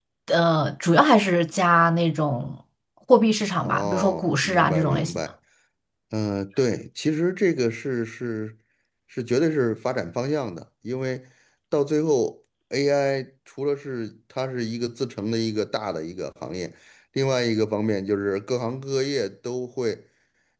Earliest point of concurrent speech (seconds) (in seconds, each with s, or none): 3.6 s